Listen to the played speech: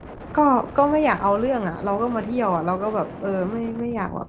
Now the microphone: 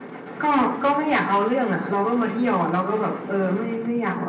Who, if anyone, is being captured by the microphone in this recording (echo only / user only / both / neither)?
echo only